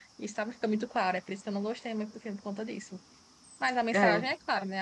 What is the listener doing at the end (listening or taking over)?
listening